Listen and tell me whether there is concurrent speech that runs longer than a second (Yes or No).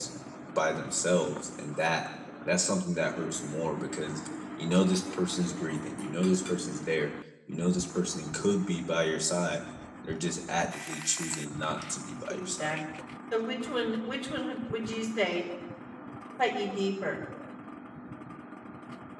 No